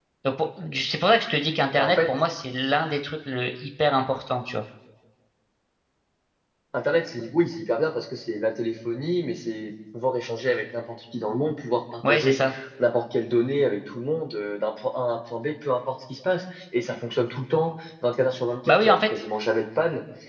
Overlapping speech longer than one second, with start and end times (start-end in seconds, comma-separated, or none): none